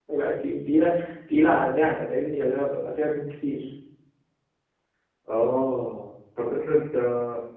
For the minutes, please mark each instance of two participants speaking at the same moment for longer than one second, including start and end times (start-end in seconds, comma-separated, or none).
none